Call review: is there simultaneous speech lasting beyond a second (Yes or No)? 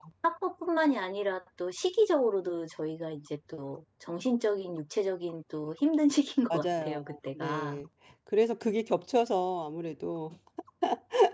Yes